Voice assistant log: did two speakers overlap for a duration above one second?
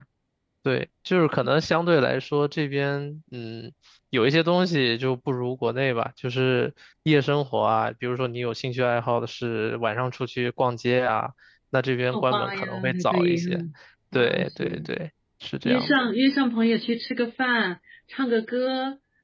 Yes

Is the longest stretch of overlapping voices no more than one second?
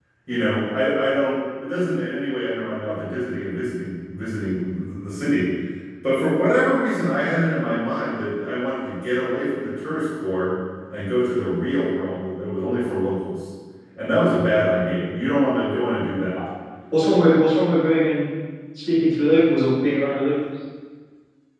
Yes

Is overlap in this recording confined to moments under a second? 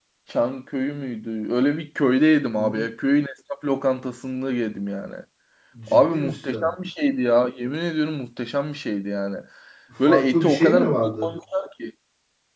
No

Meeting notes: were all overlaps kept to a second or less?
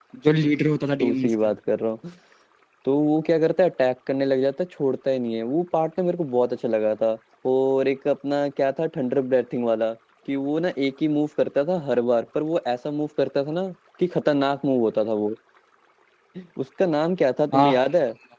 Yes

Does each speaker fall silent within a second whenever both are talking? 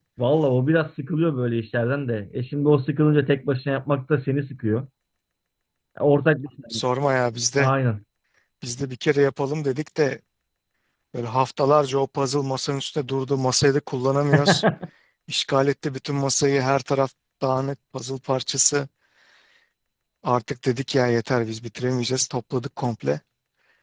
Yes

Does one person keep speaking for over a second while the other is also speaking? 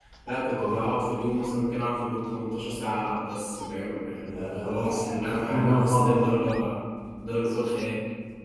Yes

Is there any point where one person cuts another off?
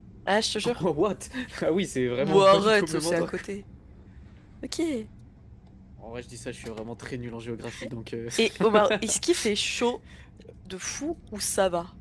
Yes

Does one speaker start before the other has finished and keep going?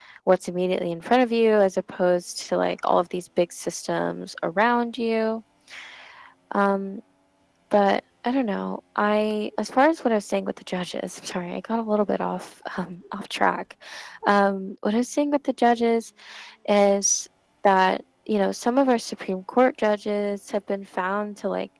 No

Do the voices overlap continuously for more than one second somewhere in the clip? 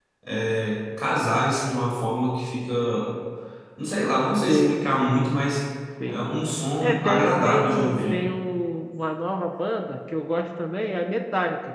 Yes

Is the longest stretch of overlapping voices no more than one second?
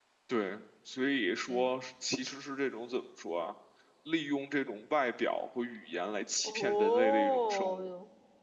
No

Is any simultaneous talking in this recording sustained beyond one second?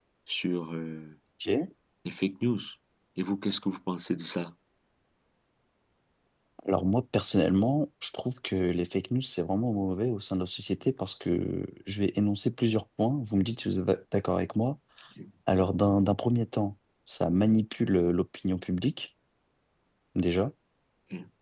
No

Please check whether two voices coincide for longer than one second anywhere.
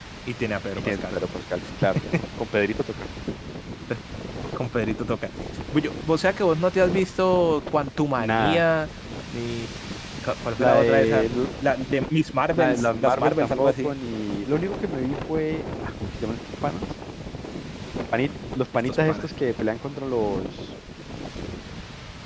Yes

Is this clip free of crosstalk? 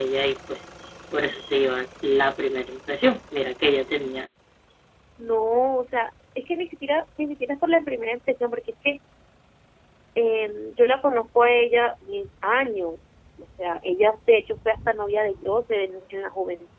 Yes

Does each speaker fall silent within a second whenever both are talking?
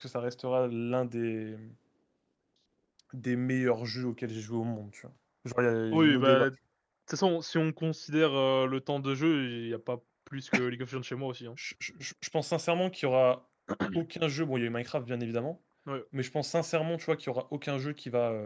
Yes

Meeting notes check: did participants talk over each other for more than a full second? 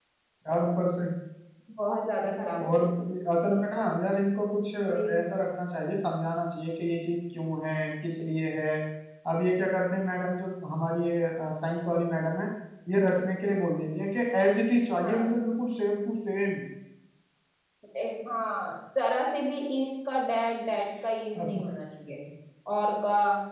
No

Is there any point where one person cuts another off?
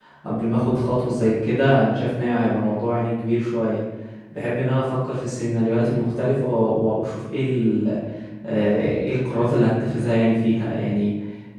No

